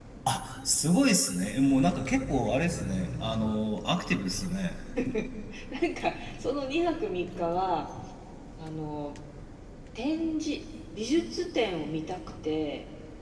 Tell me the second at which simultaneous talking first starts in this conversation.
none

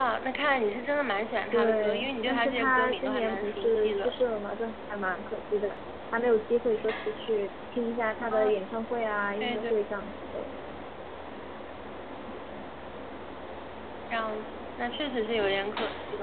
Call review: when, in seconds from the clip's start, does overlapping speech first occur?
1.5 s

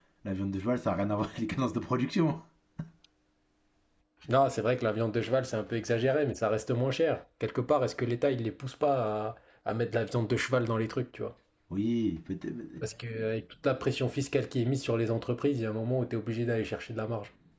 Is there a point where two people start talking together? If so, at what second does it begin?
none

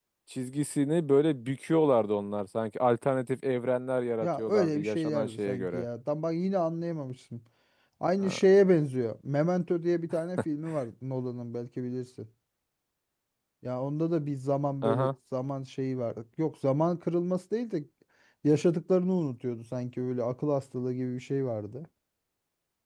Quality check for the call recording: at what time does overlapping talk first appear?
4.2 s

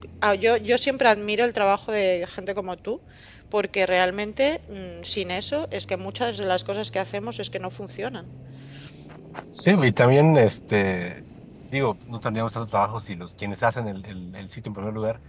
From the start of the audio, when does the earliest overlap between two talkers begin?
none

